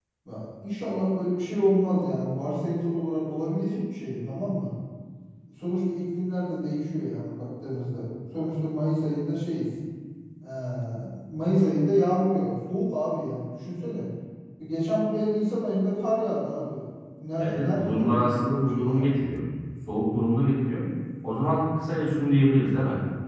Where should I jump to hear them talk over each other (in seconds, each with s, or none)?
17.4 s